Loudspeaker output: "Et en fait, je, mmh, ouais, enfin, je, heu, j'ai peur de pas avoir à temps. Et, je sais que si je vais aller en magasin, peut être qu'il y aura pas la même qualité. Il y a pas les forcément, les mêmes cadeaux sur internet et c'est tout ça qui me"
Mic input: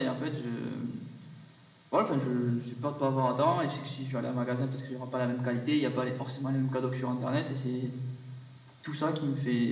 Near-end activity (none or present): none